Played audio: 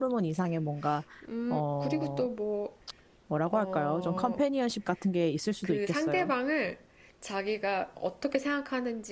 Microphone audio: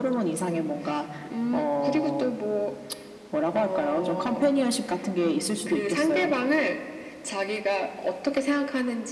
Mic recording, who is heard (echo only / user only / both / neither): echo only